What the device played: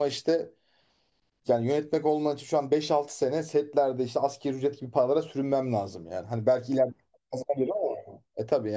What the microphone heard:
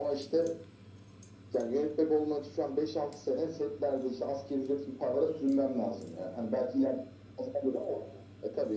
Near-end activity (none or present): none